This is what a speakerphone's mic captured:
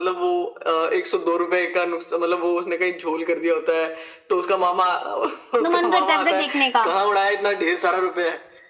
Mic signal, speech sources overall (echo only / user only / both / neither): both